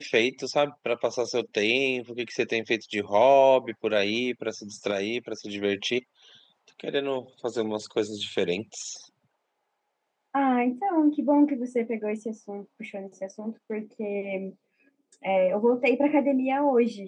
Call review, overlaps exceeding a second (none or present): none